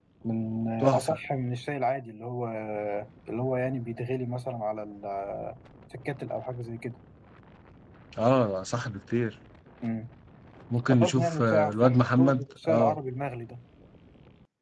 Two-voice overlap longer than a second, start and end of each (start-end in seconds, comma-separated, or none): 10.9-13.0